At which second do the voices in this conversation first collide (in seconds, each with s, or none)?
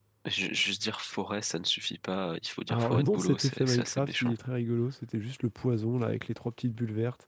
2.7 s